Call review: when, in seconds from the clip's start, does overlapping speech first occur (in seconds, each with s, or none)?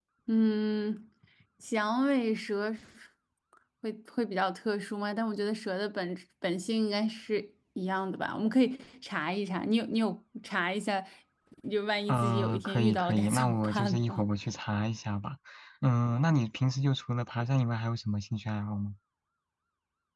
12.1 s